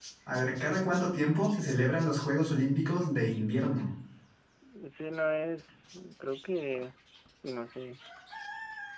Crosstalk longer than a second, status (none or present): none